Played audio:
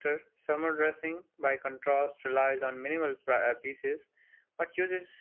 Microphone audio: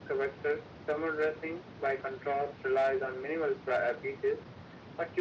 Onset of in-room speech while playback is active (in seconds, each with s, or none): none